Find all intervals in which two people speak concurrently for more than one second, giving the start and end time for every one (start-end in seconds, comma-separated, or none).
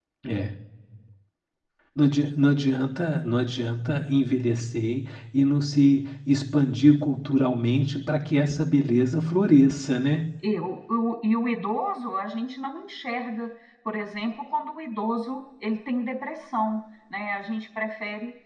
none